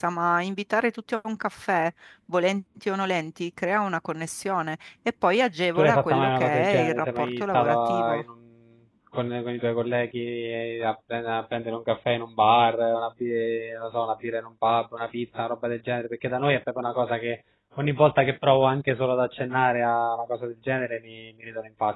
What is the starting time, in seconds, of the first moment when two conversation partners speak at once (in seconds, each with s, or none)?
5.8 s